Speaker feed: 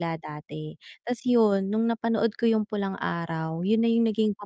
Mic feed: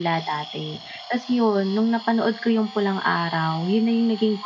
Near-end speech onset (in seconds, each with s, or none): none